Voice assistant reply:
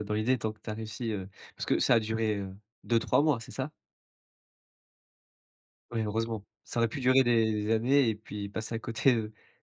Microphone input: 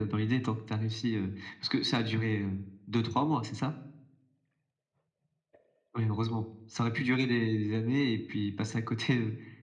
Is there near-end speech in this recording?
No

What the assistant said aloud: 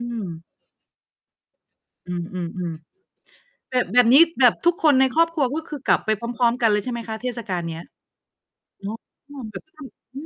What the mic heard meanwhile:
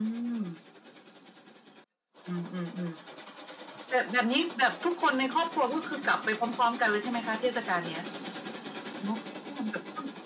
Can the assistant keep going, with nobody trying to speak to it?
Yes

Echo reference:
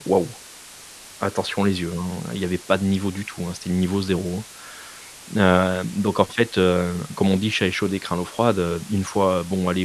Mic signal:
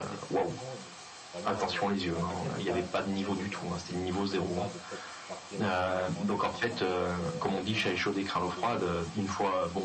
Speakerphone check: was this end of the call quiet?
No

